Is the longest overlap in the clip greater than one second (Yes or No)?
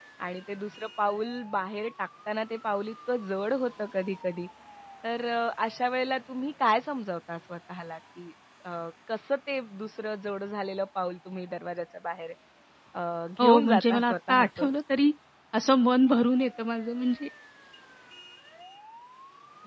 Yes